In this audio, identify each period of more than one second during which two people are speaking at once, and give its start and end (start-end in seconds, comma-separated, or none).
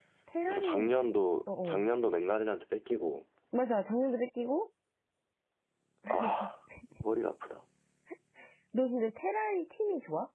none